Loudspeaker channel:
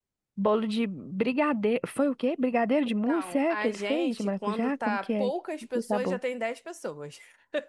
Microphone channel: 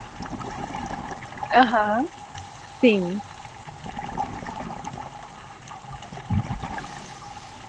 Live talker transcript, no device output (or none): Aham, sim.